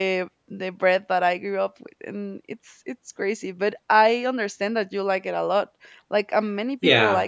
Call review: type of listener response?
taking over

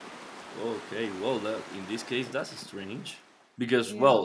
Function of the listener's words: listening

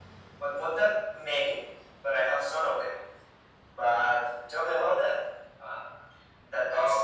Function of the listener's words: taking over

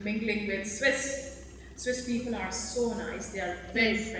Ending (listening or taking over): taking over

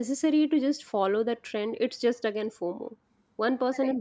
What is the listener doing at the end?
listening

